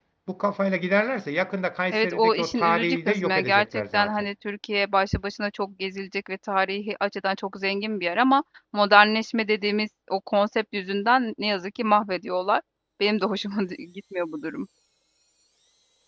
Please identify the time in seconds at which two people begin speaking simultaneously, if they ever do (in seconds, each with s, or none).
1.9 s